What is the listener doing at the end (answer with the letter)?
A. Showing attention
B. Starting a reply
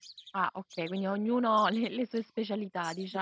B